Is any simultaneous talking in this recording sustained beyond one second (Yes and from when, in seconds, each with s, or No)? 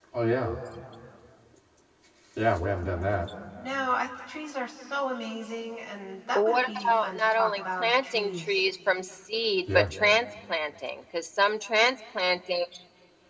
Yes, from 6.3 s